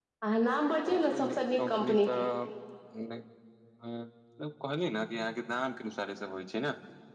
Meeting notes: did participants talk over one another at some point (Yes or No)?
Yes